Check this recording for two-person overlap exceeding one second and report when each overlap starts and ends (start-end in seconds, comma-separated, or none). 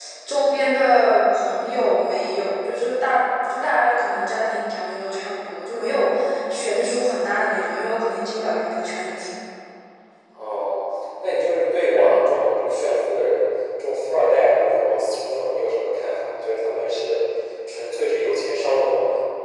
none